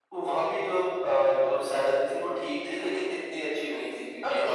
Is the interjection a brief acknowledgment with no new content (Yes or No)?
Yes